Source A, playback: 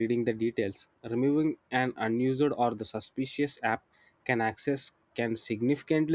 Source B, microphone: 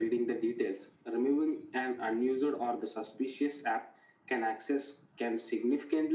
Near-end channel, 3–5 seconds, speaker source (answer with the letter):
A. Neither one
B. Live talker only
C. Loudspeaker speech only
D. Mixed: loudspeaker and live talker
C